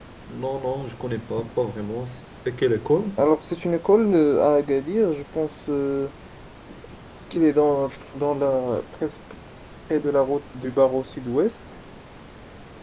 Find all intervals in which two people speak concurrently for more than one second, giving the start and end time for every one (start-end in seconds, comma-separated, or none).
none